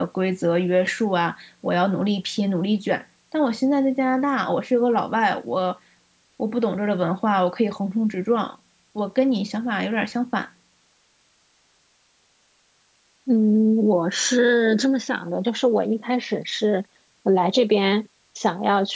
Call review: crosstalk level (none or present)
none